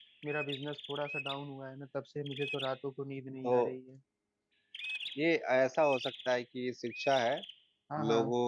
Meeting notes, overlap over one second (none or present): none